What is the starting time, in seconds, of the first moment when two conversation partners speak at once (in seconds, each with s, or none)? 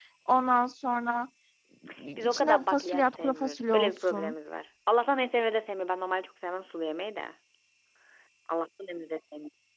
2.2 s